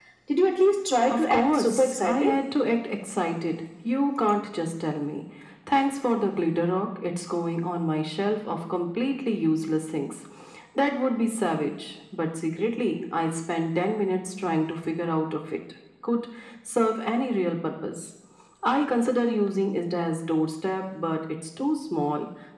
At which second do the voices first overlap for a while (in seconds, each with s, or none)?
1.1 s